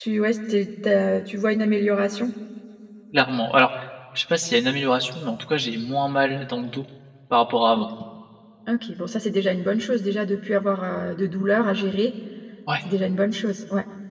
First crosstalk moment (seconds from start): none

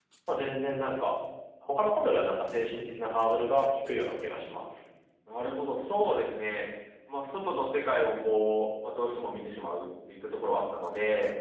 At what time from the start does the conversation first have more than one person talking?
none

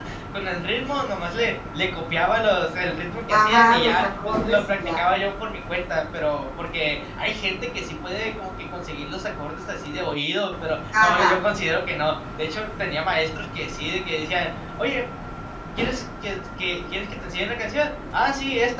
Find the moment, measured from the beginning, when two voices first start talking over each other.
3 s

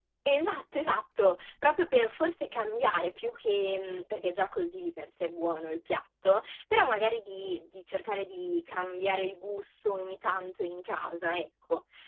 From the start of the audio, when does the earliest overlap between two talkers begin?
none

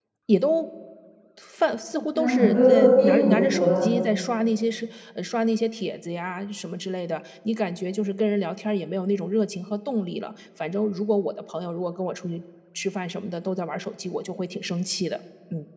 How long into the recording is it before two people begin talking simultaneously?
2 s

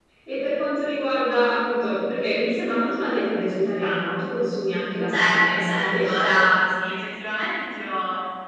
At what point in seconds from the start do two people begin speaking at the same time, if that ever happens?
5 s

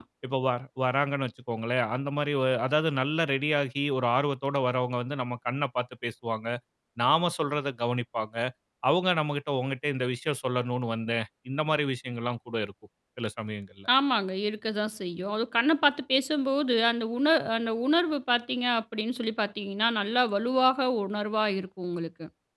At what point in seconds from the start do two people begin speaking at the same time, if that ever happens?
none

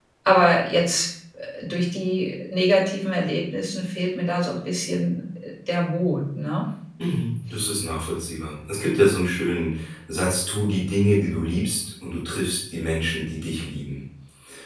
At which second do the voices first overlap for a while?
none

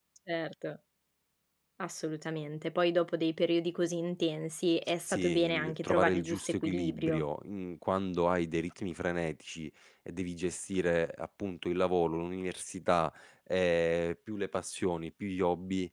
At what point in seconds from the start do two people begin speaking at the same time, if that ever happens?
5 s

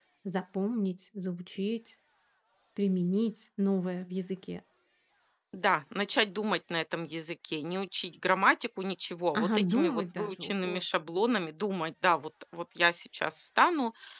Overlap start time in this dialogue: 9 s

